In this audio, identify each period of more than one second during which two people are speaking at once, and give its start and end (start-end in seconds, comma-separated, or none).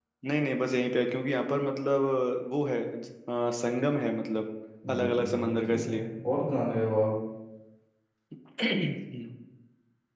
4.9-6.1